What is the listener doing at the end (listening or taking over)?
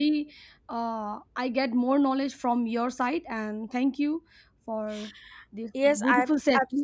taking over